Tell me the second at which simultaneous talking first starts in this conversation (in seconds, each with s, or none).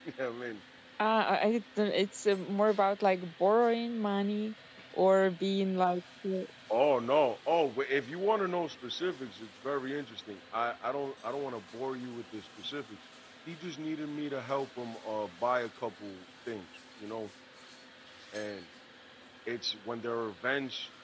none